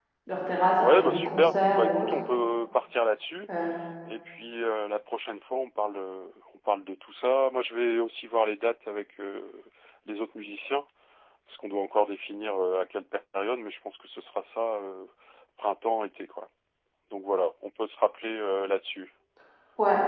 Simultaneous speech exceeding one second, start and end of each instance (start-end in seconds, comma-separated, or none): 0.8-2.1